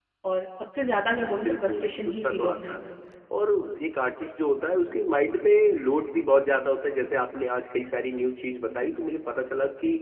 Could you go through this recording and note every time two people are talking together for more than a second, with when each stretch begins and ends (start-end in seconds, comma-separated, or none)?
1.5-2.7